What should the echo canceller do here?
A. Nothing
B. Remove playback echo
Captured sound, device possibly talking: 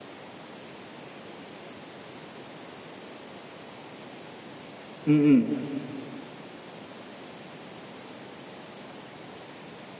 A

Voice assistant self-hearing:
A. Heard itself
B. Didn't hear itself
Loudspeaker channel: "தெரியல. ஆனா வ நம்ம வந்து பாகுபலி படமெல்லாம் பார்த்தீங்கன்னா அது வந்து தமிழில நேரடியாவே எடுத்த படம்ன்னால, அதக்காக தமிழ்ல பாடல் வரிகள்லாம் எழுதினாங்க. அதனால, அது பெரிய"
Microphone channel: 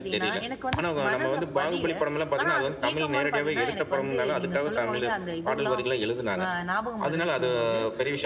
A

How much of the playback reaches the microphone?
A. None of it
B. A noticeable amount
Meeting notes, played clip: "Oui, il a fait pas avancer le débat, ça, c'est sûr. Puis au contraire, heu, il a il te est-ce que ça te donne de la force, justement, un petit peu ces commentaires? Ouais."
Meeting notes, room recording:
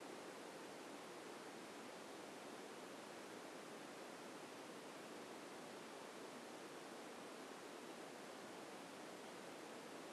A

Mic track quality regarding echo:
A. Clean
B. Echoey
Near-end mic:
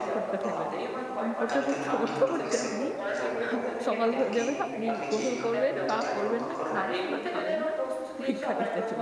B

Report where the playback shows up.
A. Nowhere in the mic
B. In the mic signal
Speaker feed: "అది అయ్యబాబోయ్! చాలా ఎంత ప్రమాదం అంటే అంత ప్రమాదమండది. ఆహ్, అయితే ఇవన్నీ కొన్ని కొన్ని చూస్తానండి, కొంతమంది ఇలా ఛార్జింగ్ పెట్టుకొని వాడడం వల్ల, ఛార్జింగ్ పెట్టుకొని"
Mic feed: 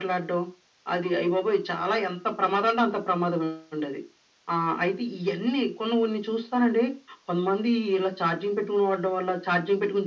B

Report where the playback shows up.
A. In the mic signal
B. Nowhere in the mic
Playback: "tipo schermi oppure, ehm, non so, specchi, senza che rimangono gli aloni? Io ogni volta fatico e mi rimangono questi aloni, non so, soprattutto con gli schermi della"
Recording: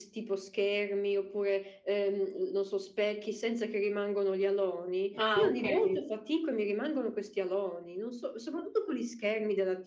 A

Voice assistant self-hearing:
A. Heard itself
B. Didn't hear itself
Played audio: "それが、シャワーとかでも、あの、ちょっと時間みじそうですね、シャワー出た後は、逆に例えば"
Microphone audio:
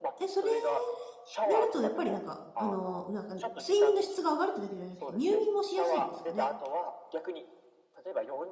A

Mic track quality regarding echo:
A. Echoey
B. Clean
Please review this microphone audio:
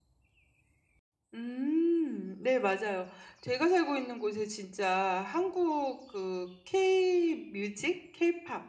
B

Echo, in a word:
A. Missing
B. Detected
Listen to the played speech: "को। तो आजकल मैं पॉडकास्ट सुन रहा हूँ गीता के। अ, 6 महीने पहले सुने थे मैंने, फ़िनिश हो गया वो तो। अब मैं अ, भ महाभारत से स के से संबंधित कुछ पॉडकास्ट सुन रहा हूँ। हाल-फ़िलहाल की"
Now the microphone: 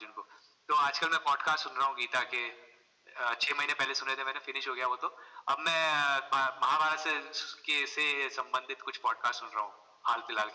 B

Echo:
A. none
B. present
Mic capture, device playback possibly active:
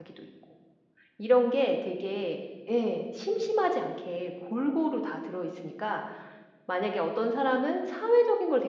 A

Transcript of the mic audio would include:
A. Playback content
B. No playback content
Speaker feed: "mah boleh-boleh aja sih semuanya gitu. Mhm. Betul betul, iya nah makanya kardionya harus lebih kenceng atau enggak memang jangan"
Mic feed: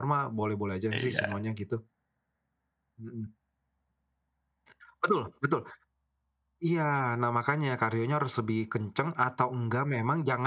A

